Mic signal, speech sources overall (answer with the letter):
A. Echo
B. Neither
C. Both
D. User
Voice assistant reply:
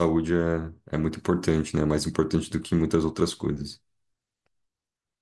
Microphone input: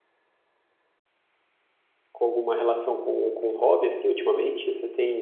D